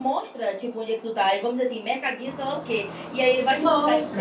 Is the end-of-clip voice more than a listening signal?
No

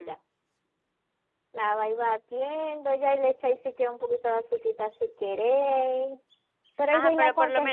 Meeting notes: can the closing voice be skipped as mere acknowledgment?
No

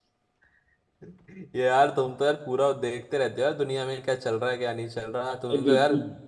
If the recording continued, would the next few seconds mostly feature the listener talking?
No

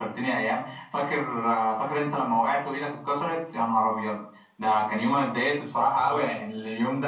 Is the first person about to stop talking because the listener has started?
No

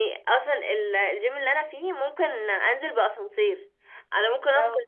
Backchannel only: Yes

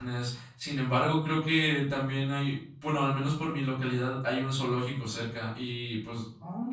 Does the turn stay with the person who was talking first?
Yes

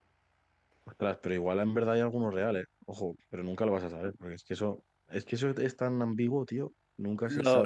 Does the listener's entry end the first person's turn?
Yes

